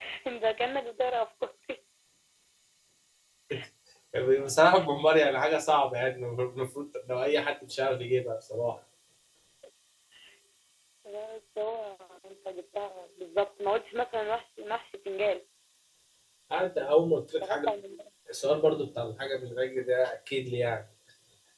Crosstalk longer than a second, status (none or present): none